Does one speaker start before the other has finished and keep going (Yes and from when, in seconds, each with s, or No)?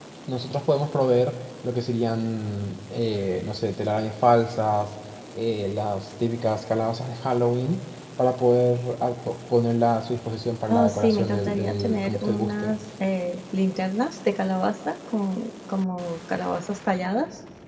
Yes, from 10.7 s